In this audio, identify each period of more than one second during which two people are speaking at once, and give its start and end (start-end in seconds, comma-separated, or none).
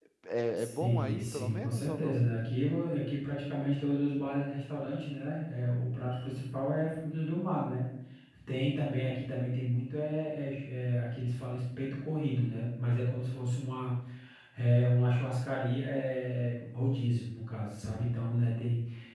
0.6-2.2